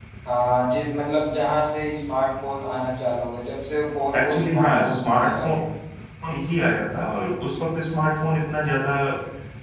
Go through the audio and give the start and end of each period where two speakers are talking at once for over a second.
4.2-5.6

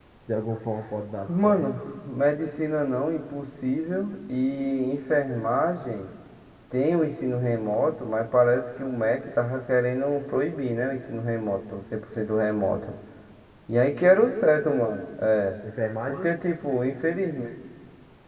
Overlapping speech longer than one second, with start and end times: none

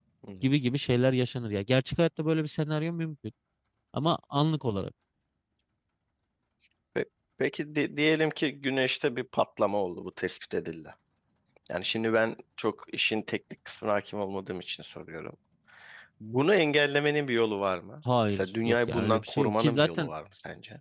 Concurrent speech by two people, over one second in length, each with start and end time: 18.3-20.1

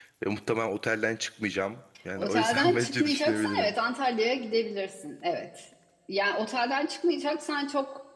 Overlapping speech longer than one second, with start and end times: 2.2-3.7

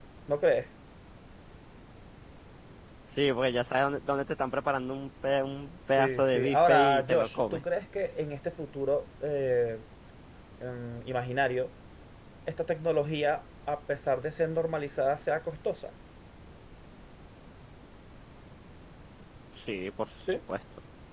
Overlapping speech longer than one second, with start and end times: 6.0-7.6

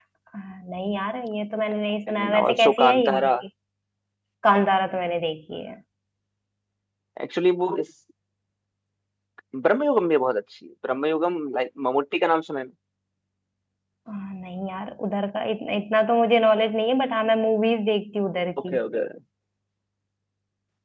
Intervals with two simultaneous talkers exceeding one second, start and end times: 2.1-3.3

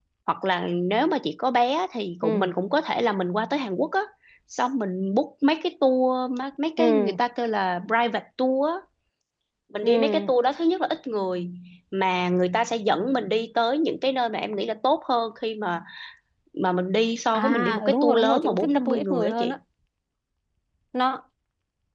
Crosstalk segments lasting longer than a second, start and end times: 17.3-19.5

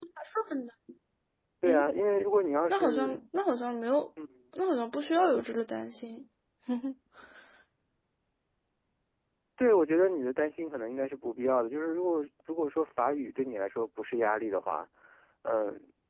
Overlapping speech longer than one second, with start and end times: none

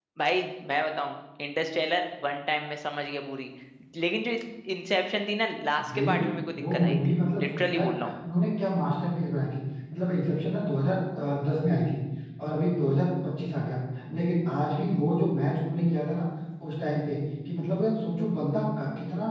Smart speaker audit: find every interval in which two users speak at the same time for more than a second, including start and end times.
6.6-8.1

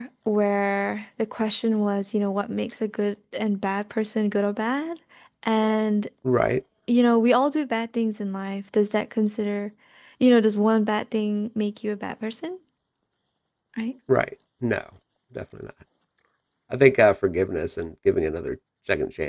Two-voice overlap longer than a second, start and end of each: none

